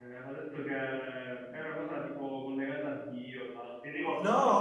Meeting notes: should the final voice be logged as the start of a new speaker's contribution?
Yes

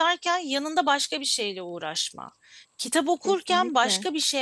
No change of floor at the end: Yes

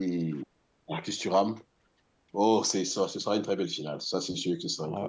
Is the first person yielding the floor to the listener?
Yes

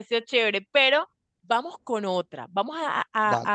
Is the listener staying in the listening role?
Yes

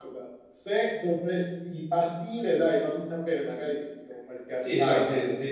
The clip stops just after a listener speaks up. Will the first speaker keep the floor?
No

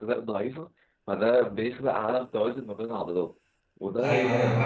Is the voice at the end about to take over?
Yes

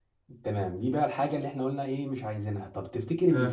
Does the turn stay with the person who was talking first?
Yes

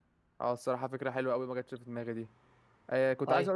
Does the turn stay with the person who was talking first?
Yes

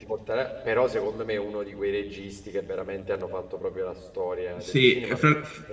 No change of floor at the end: No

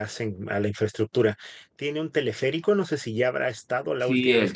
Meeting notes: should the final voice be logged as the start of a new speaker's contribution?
Yes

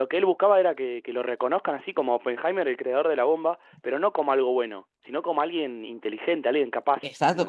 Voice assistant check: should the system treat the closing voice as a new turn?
Yes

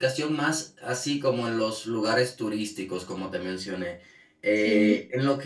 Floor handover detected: No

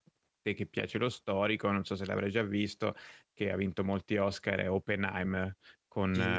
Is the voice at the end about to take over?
Yes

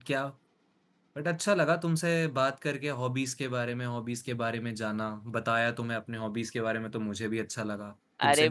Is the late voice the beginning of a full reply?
Yes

